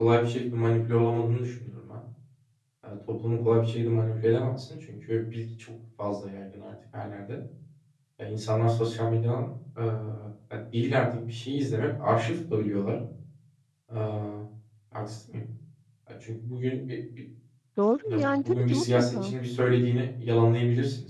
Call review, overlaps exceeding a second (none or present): present